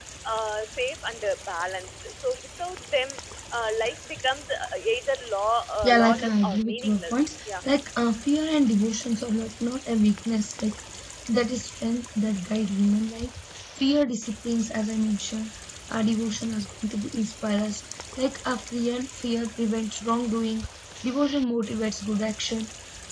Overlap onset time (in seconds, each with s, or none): 5.8 s